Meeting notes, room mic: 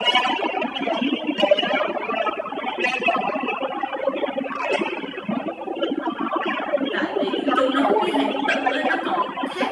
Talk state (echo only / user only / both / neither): both